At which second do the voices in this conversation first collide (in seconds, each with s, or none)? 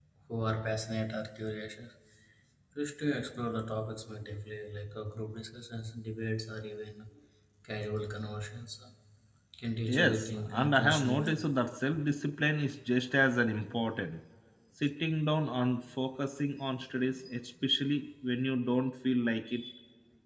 10.0 s